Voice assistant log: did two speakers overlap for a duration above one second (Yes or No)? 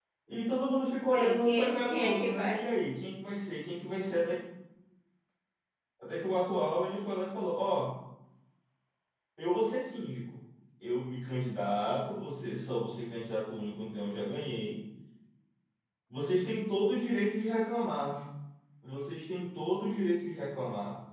Yes